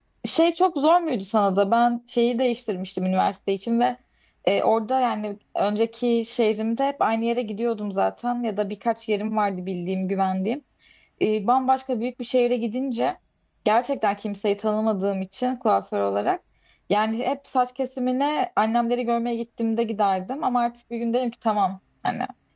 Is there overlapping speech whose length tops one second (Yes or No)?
No